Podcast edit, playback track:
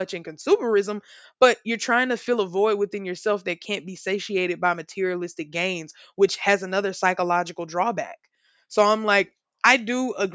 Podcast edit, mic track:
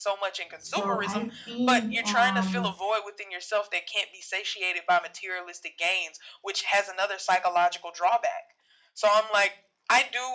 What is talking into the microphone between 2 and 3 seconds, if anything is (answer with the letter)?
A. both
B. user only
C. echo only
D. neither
A